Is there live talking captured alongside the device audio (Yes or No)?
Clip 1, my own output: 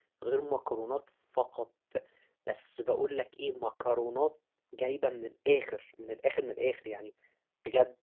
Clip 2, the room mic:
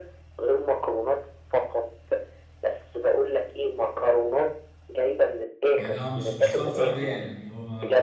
Yes